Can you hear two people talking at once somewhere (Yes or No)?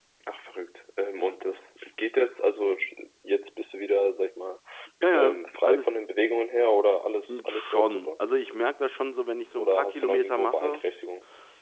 Yes